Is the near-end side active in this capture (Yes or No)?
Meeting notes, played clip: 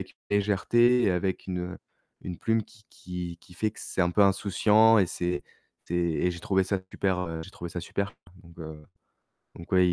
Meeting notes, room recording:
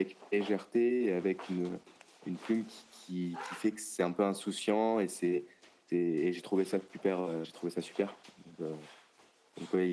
No